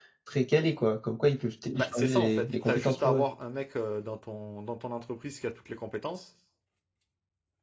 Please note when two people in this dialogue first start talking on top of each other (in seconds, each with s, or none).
1.8 s